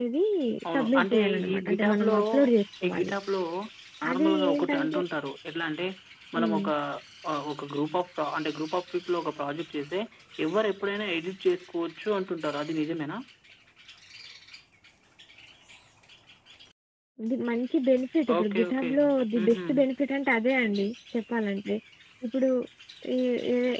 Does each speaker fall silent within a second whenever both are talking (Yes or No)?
No